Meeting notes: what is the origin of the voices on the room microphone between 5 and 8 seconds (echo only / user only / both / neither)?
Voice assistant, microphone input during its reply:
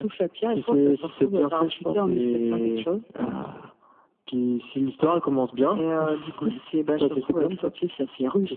echo only